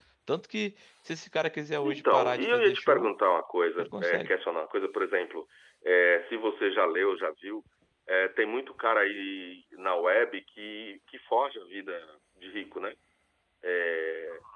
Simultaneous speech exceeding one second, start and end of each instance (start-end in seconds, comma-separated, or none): 1.8-3.1